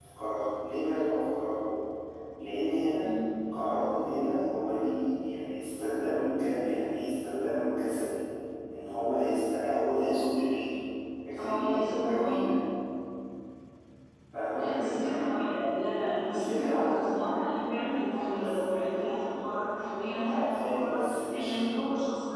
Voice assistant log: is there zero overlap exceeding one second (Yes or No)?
No